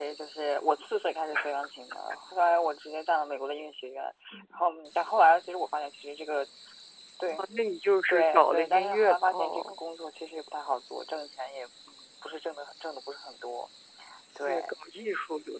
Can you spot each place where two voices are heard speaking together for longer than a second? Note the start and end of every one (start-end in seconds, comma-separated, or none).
8.1-9.8